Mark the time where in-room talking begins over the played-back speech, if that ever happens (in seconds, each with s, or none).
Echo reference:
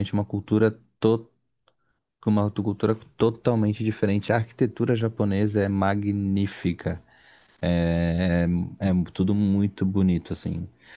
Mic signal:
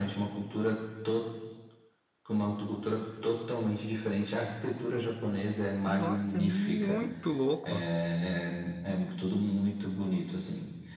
5.8 s